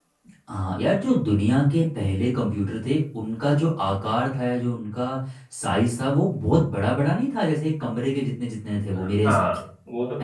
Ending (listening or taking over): taking over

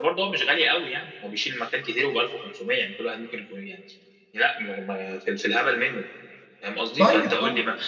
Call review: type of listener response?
listening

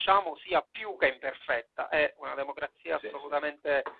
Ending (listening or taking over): listening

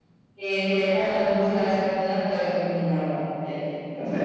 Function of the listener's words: taking over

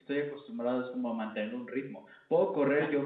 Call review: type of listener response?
listening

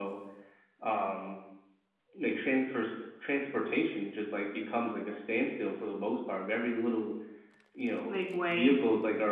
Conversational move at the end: listening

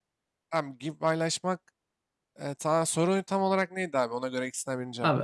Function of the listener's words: taking over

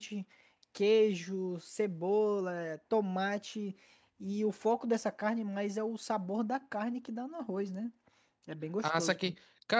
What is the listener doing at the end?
taking over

